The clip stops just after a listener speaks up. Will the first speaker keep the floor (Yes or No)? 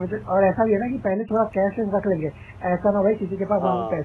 Yes